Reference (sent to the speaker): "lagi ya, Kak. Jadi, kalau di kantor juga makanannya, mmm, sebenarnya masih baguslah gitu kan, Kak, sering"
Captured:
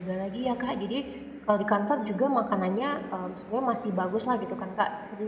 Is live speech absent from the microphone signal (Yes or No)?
Yes